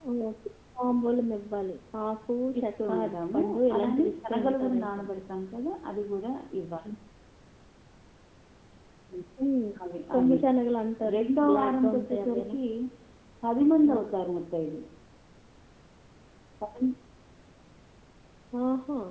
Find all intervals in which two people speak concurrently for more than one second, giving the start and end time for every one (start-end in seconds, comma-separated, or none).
2.6-5.0, 11.1-12.6